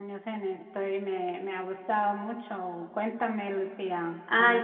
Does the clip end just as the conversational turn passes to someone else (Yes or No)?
Yes